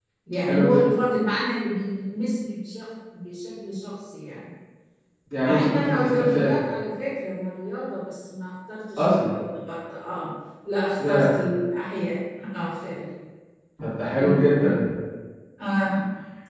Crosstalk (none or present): present